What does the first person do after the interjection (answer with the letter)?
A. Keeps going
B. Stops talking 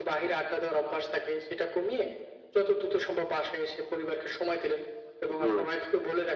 A